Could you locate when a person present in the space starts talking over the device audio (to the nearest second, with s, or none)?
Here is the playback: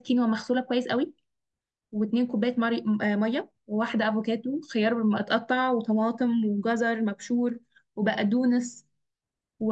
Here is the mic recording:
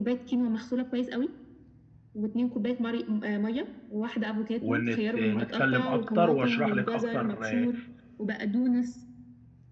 5 s